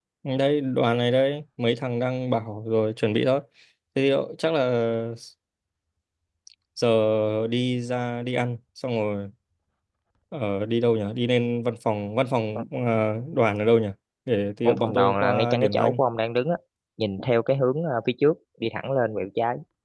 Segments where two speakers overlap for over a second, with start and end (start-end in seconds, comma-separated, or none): 14.6-16.0